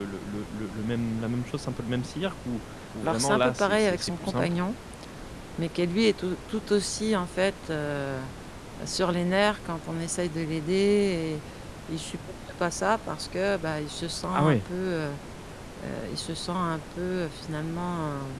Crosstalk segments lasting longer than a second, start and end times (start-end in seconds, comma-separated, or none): 3.0-4.6